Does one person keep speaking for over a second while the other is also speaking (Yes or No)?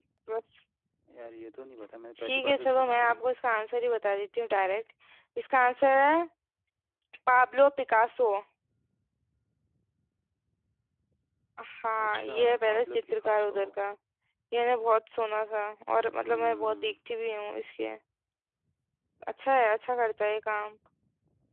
Yes